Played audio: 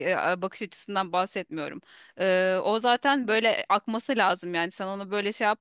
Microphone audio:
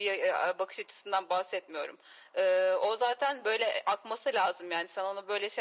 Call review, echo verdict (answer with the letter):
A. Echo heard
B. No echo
A